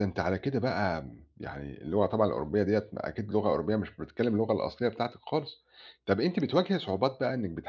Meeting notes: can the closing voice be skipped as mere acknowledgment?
Yes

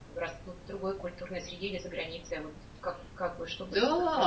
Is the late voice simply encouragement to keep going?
No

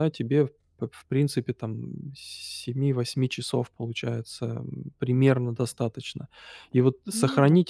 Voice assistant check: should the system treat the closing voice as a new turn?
No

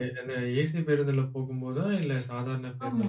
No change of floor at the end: No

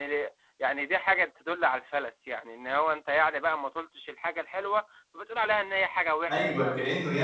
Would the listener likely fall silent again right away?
No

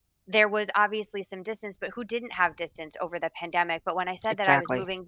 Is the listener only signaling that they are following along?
Yes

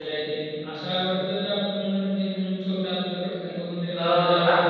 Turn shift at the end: Yes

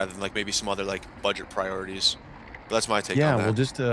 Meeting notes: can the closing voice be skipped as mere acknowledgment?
No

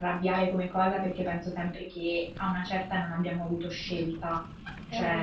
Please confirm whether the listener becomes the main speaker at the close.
No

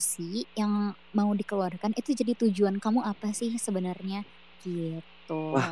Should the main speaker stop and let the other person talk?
Yes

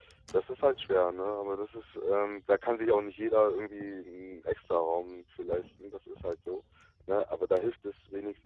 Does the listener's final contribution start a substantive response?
No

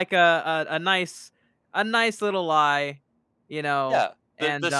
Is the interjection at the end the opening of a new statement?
Yes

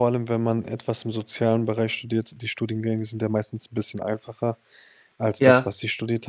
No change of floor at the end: Yes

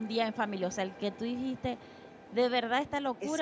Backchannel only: No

